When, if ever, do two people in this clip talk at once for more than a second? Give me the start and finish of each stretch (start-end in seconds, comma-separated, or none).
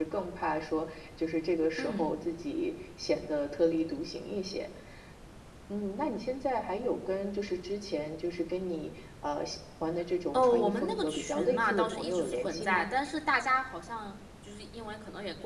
10.3-12.8